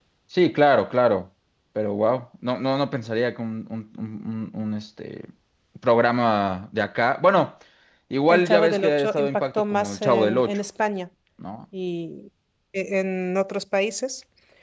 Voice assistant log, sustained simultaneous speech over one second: present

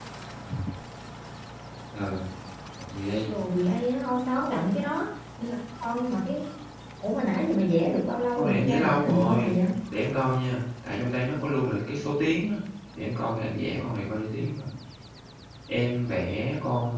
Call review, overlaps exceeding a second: present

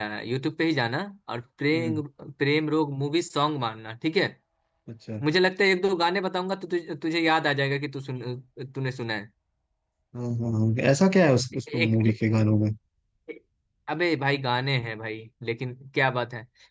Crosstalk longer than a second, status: none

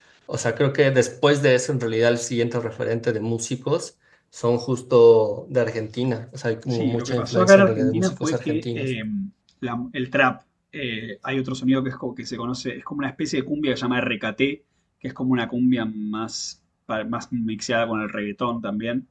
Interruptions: present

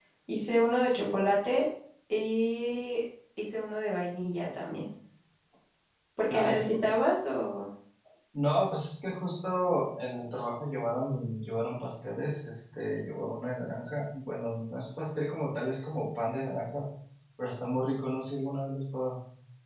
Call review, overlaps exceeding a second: none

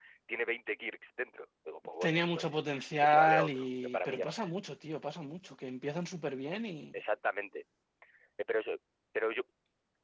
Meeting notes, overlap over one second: present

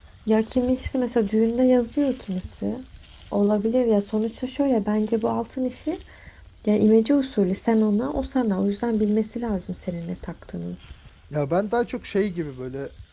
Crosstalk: none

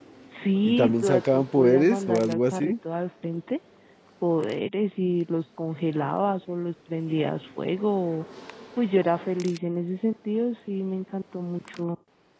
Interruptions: present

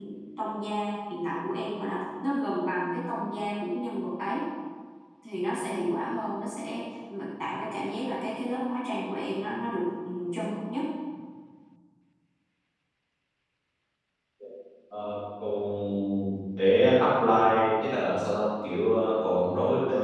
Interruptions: none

